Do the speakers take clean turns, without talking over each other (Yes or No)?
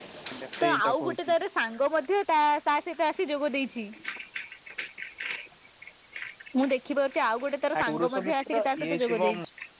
No